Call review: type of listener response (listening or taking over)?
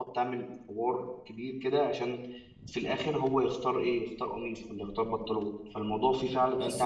taking over